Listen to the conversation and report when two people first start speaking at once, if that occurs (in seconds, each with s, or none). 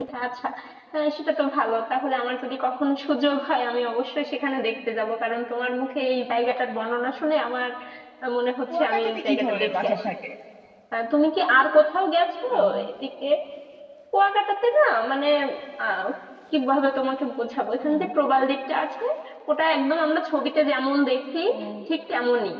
8.7 s